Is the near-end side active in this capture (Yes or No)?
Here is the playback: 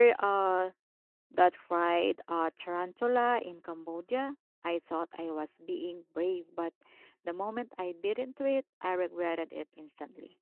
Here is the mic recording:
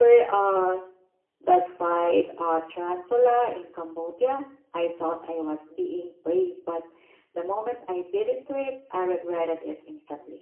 No